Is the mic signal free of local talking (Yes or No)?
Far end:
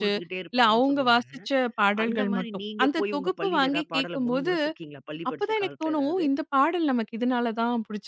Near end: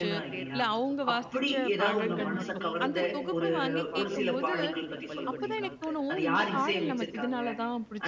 No